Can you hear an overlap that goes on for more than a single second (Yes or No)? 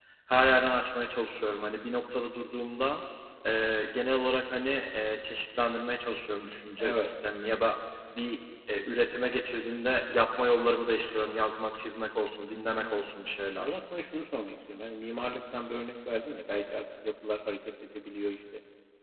No